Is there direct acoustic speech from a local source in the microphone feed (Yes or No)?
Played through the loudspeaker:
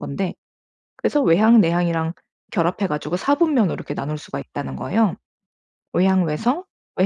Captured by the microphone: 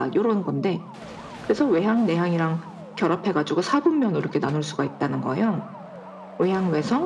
No